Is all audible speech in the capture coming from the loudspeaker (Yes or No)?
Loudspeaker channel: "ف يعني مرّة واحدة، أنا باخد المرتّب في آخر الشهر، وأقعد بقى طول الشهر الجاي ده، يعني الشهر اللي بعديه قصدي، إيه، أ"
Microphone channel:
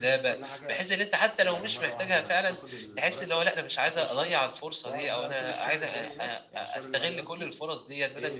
No